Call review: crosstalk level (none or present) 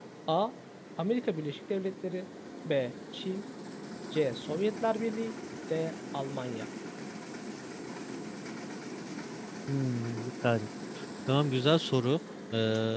none